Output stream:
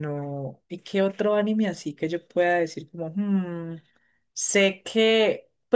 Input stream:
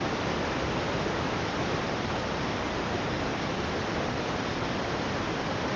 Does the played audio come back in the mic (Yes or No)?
No